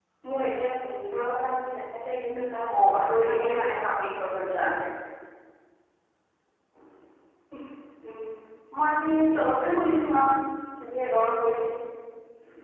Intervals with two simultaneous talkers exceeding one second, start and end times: 2.8-4.1

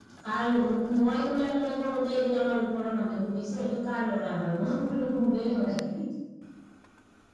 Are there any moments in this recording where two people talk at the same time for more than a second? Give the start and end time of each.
none

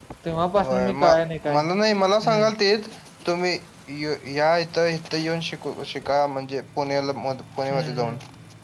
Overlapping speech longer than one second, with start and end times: none

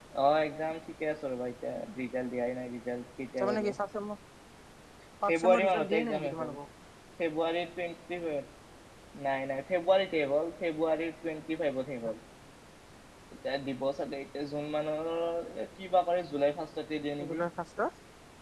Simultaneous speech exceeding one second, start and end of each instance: 5.3-6.6

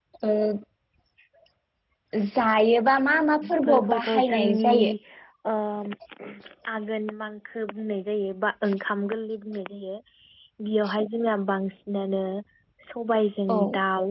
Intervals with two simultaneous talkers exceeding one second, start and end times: 3.5-4.7

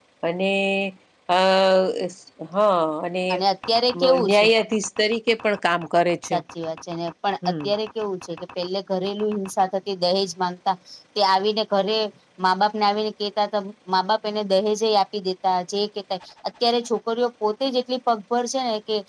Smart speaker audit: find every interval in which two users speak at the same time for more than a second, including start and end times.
none

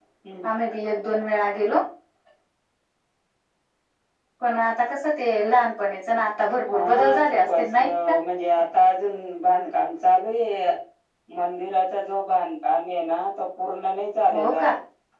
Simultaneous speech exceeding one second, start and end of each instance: 6.7-8.1

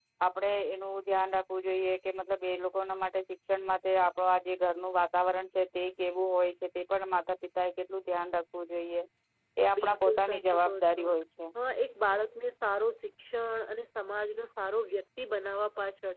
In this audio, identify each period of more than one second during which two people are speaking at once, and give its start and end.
9.8-11.1

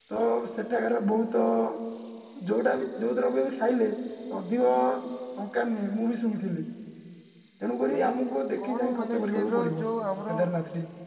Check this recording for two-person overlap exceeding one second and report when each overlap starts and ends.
8.6-9.8

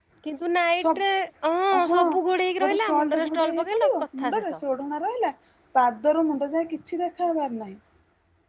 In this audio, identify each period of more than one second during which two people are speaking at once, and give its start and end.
2.9-4.6

